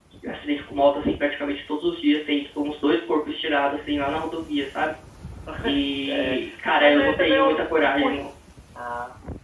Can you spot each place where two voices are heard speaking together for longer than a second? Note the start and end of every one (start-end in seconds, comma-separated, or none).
6.8-8.2